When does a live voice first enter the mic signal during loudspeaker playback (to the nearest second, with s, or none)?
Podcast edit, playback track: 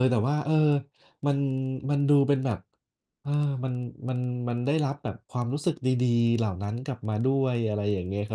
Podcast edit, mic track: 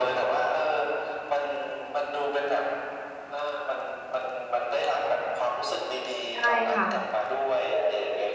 6 s